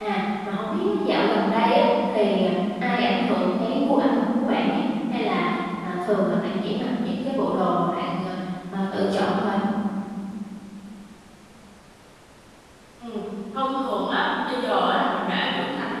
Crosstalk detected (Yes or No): No